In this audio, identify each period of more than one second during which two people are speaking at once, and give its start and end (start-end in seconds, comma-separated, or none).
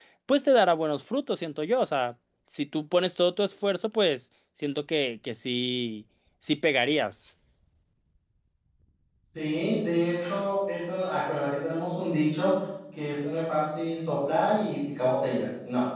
none